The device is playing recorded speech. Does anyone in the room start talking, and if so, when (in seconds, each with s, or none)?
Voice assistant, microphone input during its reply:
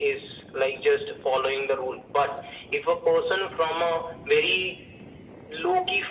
none